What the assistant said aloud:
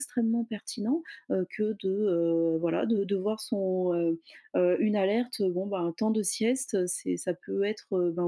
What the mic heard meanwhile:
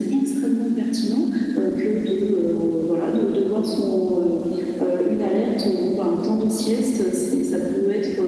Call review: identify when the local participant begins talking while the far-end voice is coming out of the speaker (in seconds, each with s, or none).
none